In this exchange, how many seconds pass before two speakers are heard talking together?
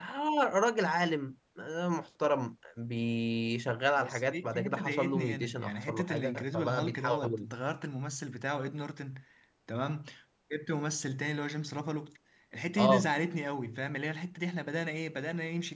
4.0 s

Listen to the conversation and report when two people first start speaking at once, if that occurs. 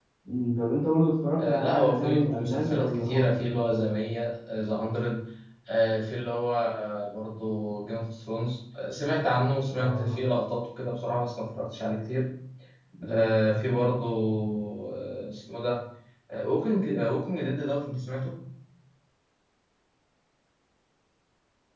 1.4 s

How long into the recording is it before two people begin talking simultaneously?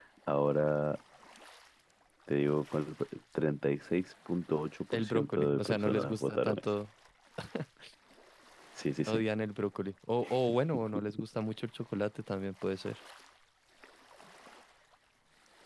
4.9 s

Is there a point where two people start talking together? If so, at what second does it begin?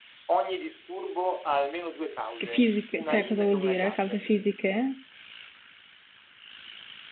2.4 s

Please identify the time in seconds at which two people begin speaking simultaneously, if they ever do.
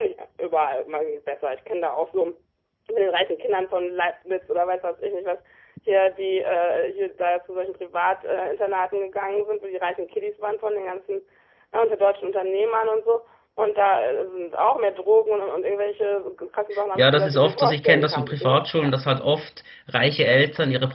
16.9 s

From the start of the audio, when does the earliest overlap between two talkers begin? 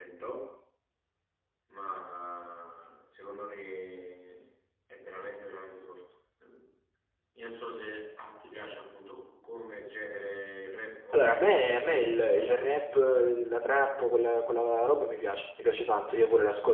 11.1 s

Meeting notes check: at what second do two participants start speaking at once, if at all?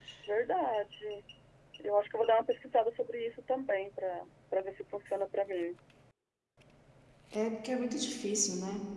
none

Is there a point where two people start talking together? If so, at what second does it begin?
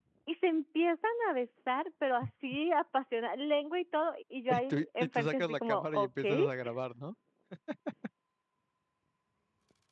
4.5 s

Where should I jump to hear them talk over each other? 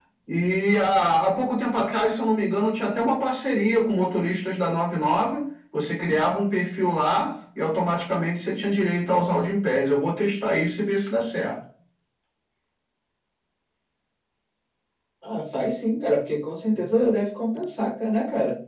none

